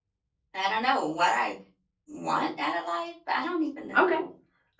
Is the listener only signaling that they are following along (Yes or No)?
No